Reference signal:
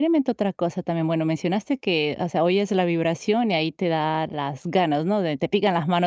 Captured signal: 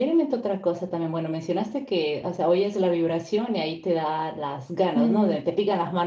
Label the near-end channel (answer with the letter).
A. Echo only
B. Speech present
B